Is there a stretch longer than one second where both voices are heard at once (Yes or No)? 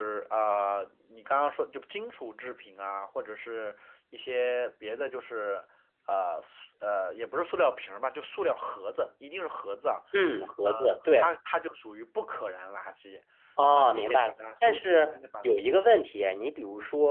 Yes